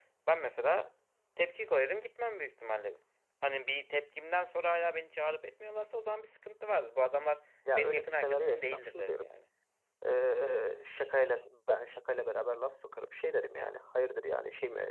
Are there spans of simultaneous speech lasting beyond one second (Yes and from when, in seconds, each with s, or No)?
Yes, from 7.8 s